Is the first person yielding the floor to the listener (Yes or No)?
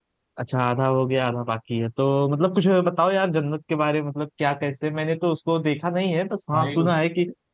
No